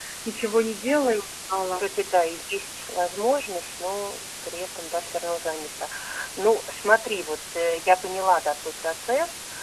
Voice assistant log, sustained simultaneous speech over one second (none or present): none